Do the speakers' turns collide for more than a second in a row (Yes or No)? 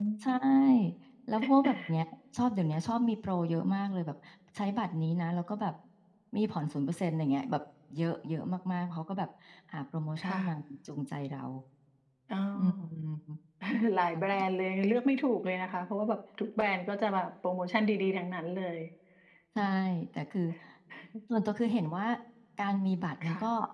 No